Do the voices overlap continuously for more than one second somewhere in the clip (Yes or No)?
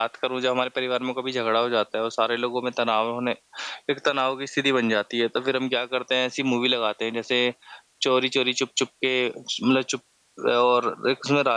No